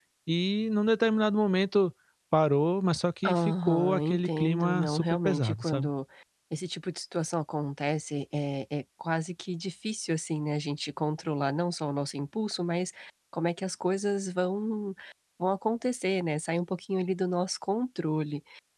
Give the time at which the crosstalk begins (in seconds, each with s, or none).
3.2 s